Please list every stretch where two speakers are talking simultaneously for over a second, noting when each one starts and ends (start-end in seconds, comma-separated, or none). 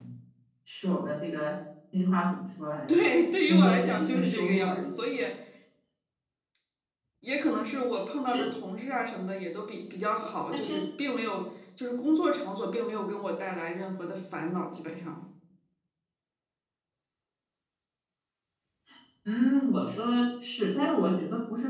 3.5-5.2